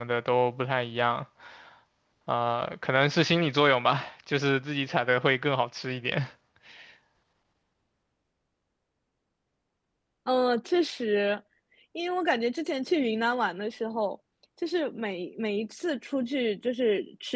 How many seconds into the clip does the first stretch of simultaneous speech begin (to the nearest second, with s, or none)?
none